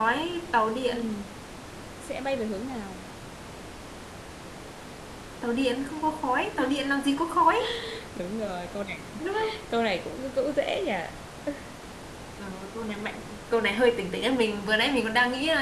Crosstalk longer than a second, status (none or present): none